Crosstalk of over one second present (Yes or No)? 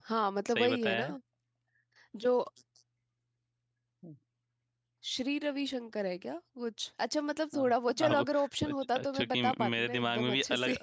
Yes